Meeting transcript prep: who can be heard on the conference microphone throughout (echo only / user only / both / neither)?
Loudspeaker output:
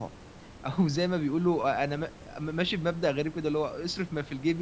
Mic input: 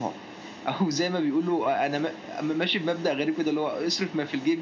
echo only